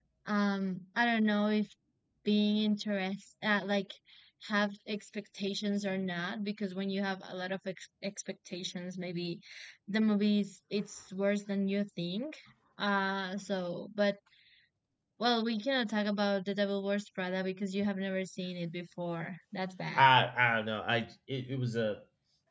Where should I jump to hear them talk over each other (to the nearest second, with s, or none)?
none